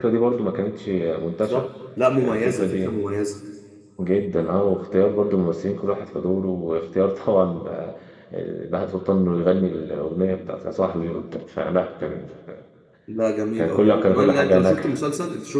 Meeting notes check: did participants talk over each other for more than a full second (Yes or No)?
Yes